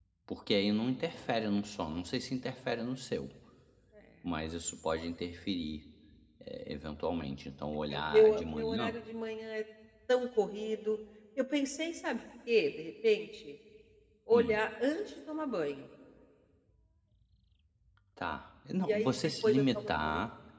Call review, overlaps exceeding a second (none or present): present